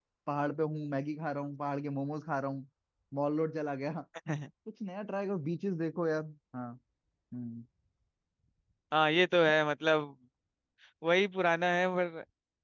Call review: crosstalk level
none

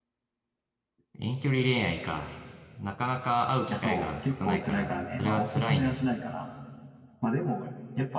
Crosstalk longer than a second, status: present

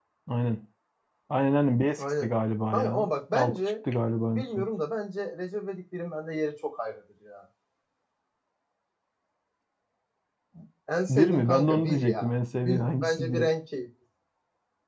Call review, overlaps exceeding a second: present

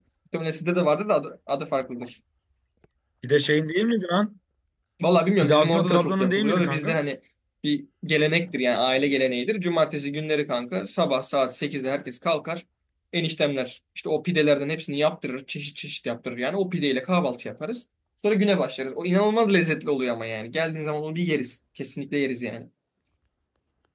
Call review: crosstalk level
present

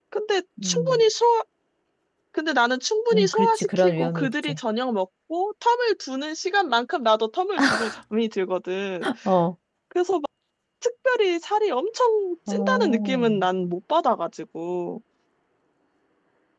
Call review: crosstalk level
present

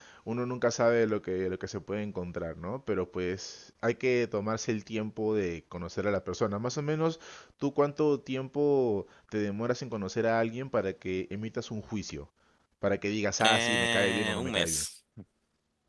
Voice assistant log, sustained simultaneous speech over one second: present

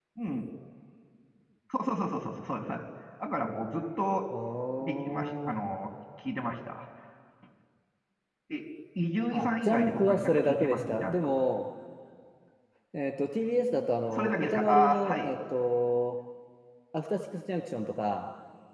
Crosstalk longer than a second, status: present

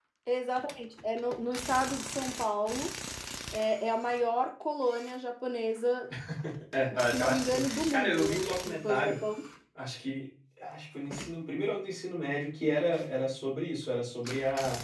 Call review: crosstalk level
present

